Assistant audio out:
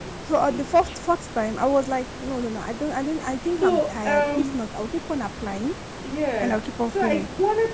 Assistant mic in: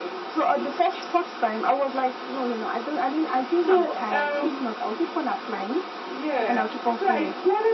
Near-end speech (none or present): none